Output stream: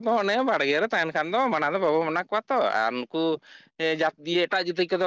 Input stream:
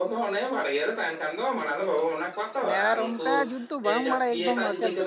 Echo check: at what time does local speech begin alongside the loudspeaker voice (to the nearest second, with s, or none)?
3 s